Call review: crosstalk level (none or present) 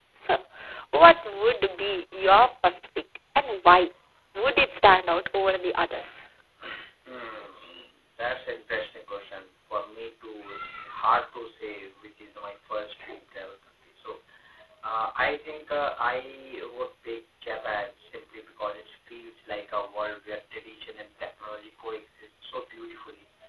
none